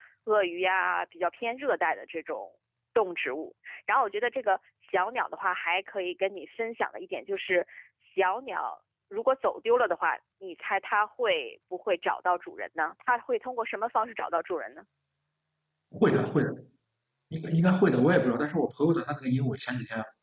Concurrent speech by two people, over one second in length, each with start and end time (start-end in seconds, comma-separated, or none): none